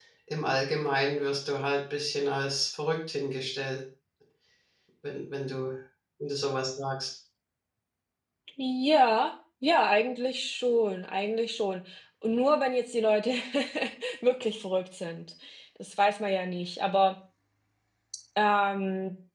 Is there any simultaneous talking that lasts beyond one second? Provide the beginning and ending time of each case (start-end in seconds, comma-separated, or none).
none